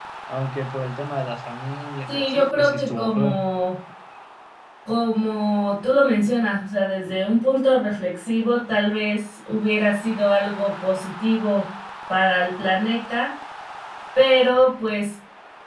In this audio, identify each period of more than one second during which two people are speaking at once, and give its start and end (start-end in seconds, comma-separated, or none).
2.1-3.4